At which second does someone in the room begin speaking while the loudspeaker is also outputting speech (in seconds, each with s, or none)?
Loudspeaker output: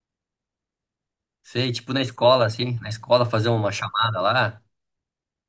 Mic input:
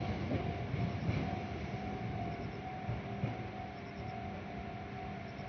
none